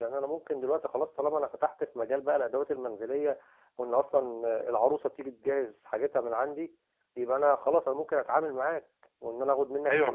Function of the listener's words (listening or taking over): taking over